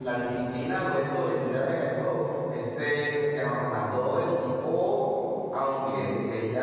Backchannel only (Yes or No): Yes